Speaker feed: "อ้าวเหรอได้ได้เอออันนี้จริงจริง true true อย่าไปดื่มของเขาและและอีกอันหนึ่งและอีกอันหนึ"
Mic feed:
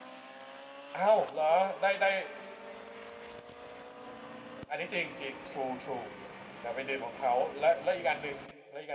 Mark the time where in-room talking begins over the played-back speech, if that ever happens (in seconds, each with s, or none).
none